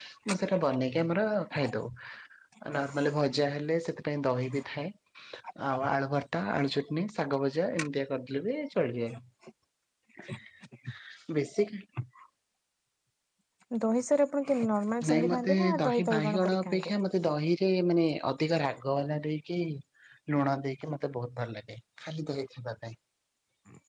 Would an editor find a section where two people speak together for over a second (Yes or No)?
Yes